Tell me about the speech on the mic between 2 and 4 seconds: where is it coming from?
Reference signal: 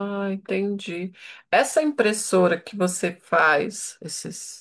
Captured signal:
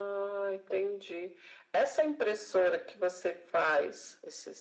echo only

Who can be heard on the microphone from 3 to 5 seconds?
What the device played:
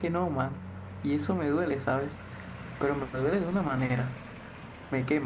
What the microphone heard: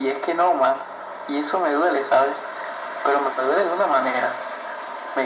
echo only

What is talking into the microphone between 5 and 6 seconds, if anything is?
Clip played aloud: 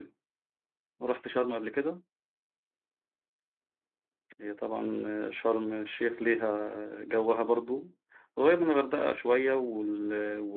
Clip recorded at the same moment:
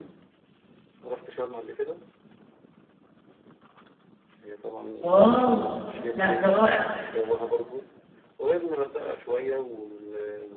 both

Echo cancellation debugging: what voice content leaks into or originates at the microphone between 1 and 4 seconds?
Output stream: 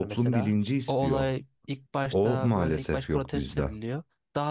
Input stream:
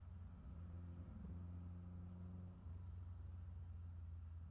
neither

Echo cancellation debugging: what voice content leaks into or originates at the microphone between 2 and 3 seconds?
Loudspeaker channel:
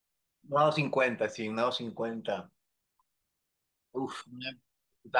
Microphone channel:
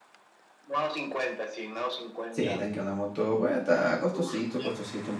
both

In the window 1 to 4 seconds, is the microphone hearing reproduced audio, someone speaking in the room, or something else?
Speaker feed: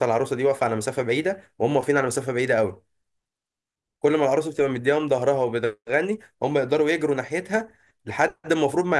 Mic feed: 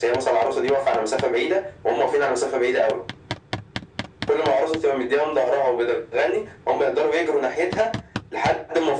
echo only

